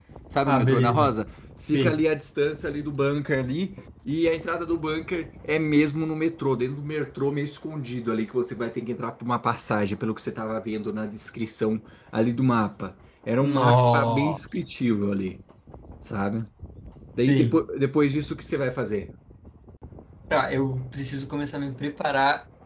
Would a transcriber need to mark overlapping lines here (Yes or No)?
Yes